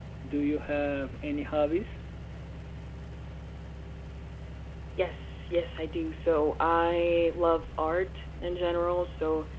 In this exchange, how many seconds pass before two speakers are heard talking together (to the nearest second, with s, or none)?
none